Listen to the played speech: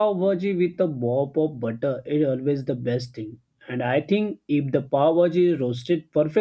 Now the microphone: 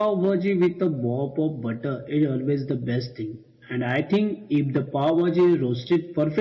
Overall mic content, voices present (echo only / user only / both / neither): echo only